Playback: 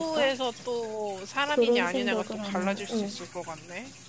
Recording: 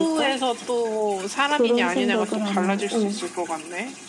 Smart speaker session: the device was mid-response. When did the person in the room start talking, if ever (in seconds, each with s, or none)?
none